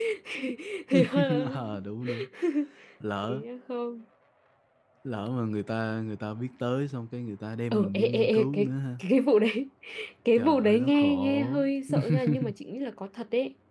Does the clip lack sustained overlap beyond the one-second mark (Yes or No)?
No